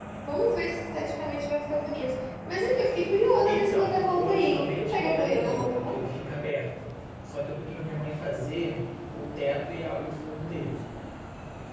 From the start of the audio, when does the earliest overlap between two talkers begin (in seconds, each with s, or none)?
3.5 s